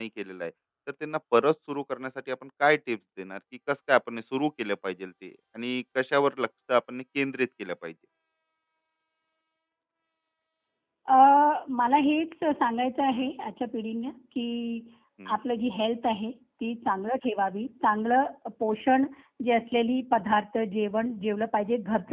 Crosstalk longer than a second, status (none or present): none